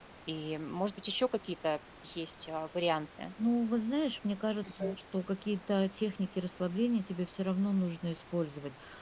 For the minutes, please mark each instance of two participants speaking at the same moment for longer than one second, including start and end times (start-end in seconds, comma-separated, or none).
none